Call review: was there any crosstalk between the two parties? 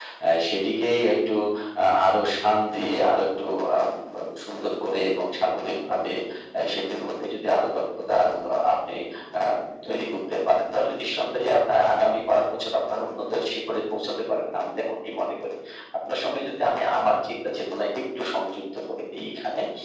No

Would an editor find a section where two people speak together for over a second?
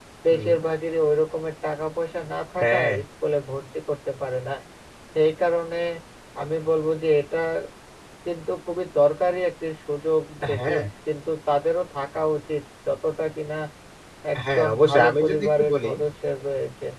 Yes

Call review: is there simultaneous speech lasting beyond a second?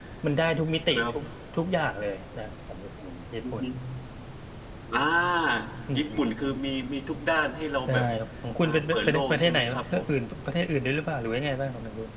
Yes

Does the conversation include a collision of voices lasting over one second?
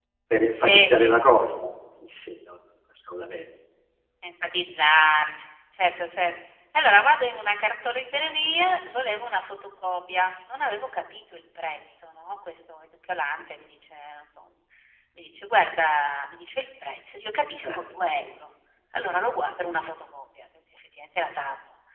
No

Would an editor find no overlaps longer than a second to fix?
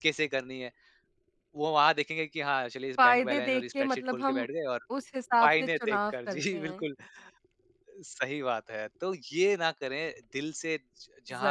No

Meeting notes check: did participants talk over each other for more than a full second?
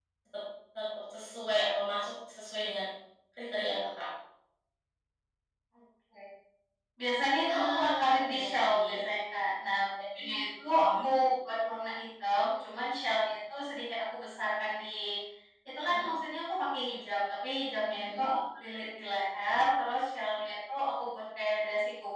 Yes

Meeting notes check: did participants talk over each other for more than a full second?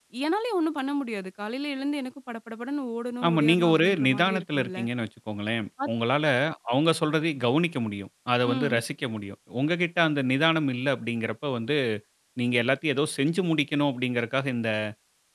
Yes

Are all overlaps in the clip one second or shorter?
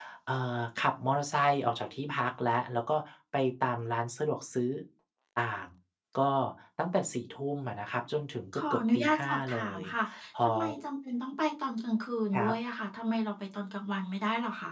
No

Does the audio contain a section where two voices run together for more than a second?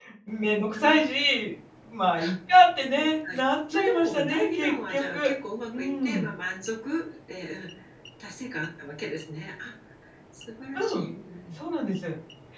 Yes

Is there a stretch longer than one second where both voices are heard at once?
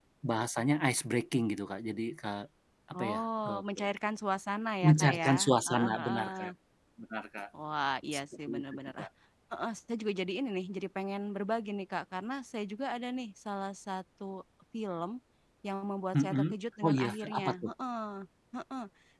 Yes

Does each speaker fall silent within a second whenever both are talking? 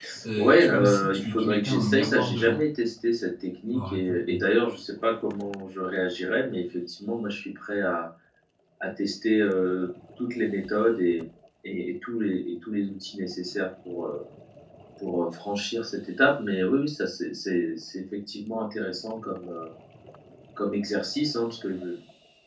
No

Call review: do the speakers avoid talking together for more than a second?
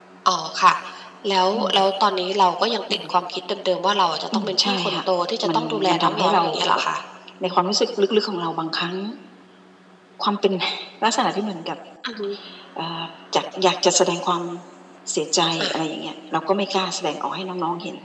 No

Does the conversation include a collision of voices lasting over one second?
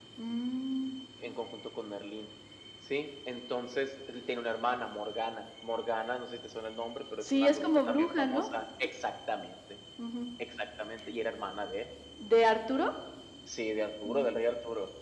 Yes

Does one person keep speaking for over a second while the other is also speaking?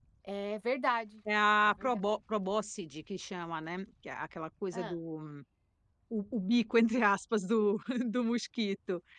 No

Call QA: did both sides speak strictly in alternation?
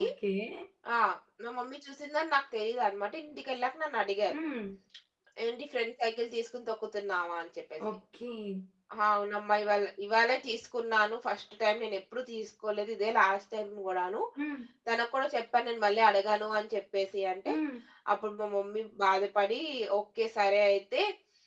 Yes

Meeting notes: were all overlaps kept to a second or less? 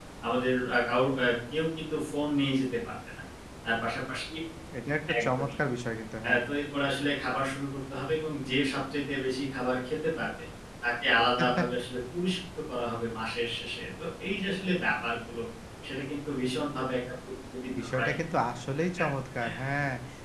Yes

